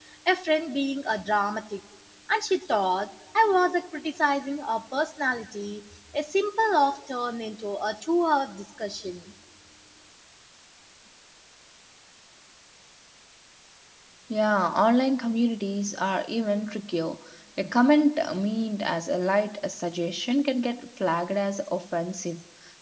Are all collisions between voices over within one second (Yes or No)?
Yes